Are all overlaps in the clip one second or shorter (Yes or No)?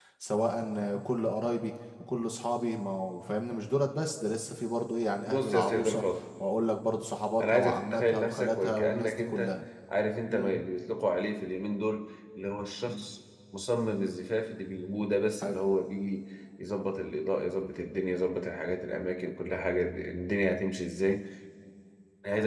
No